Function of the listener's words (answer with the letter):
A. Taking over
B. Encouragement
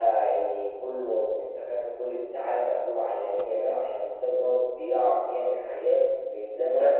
A